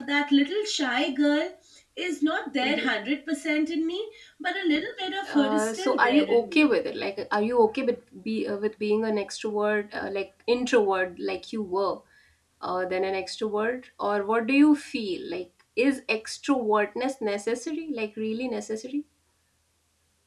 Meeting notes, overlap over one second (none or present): present